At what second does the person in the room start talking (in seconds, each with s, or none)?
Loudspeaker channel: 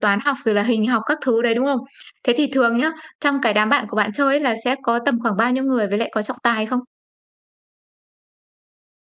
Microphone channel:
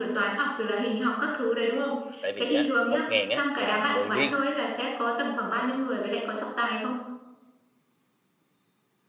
2.2 s